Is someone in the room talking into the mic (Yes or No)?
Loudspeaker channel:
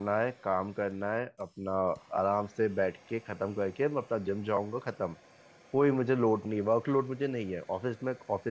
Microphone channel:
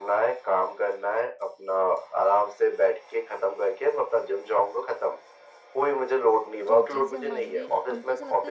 Yes